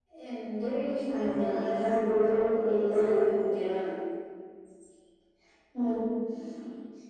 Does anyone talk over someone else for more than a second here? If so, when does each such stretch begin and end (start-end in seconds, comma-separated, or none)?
1.1-3.2